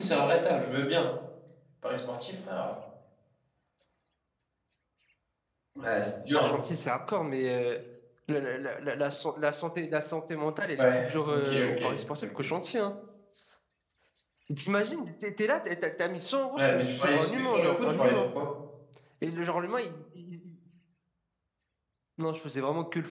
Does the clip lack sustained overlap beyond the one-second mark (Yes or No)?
No